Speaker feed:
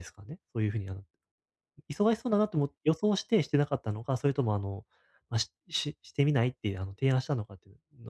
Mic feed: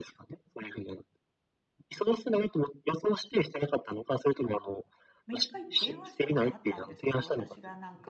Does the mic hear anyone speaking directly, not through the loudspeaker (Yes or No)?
Yes